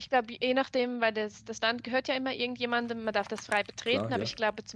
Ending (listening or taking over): listening